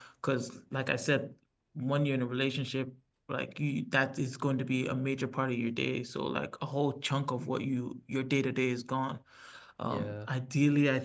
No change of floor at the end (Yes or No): Yes